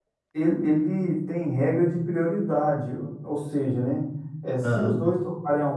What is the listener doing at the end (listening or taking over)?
listening